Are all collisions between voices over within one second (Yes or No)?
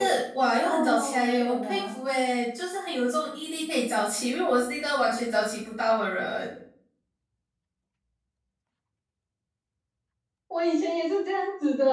No